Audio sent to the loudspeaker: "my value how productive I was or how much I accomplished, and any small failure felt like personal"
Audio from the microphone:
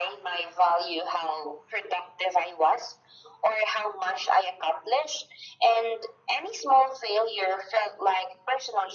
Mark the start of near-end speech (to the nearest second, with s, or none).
none